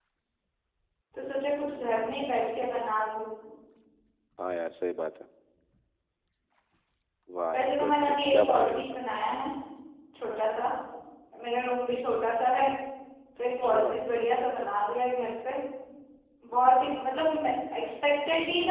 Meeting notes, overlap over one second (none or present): present